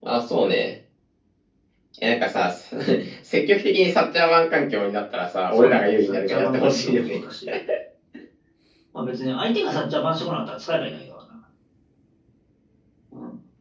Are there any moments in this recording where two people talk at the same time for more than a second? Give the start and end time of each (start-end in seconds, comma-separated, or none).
5.5-7.2